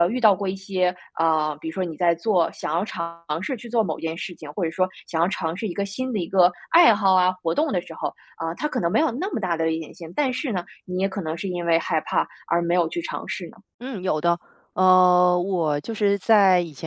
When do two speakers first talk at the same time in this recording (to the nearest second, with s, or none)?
none